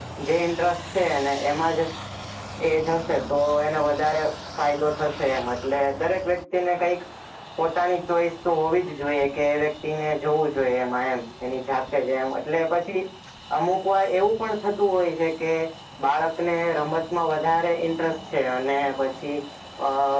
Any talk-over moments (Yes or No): No